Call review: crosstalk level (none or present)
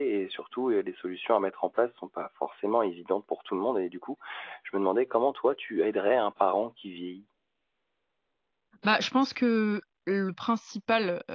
none